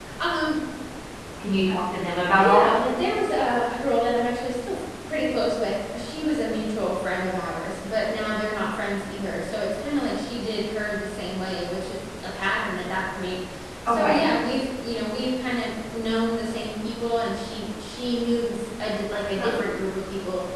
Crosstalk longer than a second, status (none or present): none